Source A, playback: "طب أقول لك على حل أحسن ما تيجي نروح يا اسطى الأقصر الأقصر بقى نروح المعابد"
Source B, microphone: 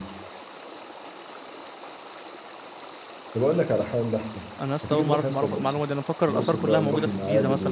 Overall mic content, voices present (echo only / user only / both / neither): both